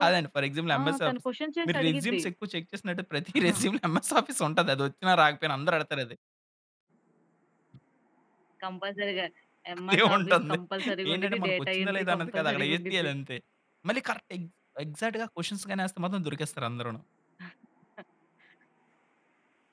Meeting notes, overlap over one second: present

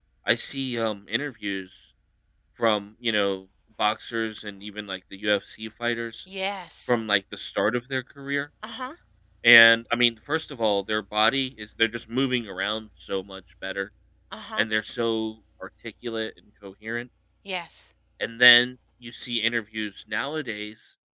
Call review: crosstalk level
none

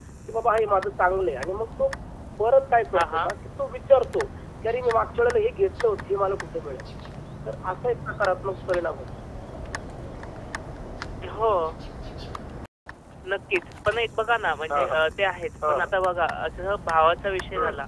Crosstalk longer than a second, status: none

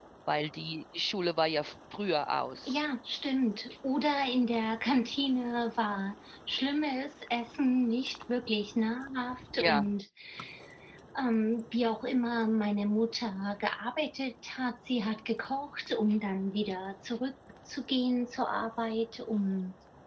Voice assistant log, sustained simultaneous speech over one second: none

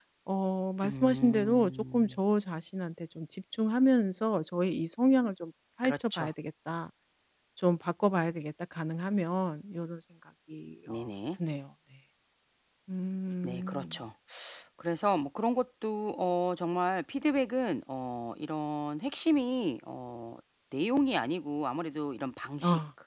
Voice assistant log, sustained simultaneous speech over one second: present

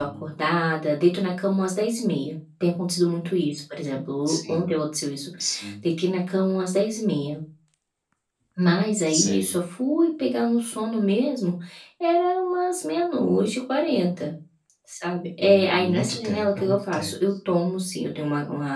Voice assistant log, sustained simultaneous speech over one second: present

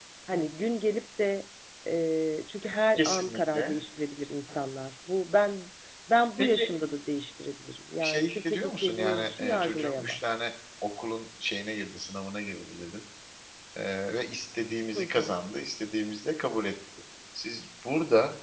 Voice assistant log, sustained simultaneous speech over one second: present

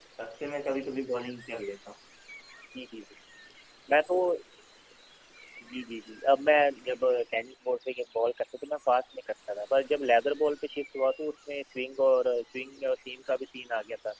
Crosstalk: none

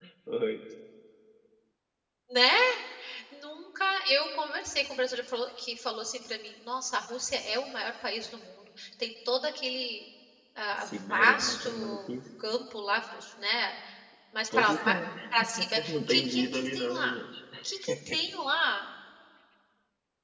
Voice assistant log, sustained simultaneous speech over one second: present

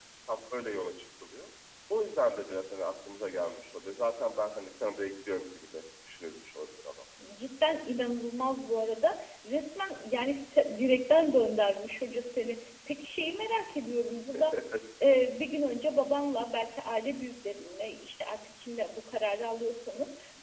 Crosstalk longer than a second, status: none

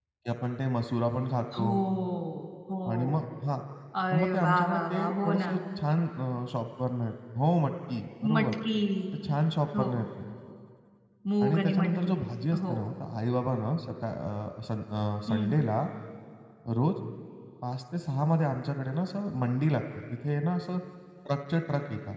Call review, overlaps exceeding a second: present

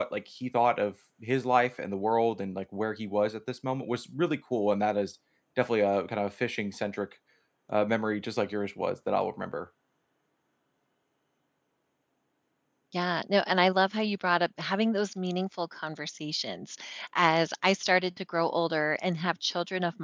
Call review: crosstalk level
none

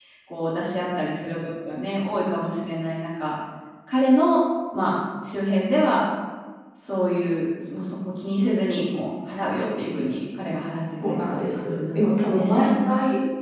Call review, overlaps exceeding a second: present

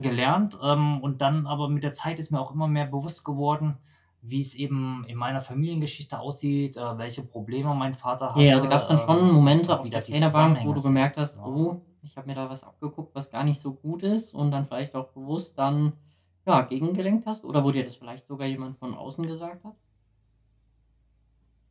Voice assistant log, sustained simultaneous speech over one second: present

